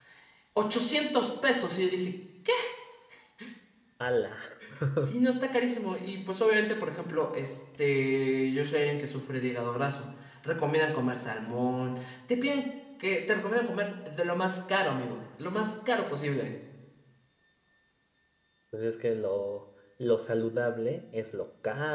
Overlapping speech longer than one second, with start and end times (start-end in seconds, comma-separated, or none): none